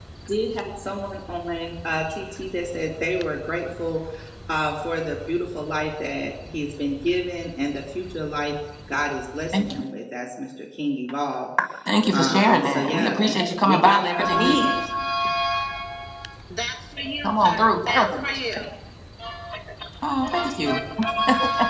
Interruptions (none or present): present